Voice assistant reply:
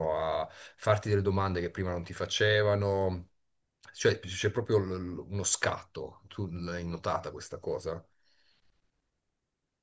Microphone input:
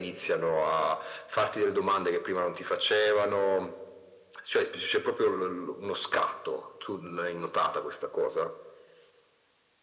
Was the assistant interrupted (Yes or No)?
No